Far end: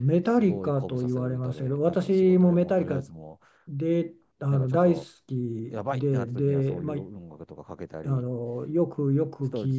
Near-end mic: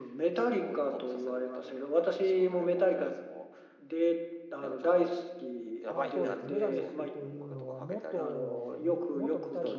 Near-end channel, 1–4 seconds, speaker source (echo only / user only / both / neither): echo only